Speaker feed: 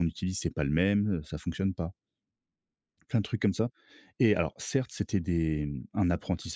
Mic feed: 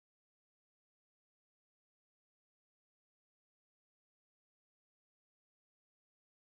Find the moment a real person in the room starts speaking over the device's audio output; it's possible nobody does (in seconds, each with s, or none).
none